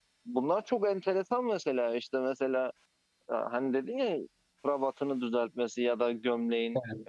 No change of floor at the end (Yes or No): Yes